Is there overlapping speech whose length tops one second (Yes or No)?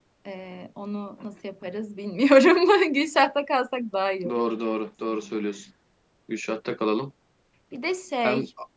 No